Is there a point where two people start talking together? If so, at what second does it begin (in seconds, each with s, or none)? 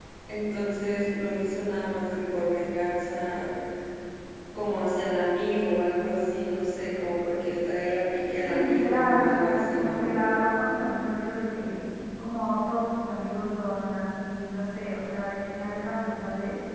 8.4 s